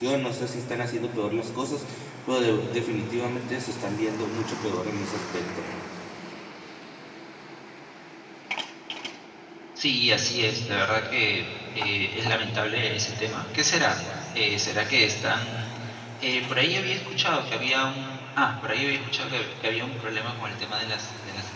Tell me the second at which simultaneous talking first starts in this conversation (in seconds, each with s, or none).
none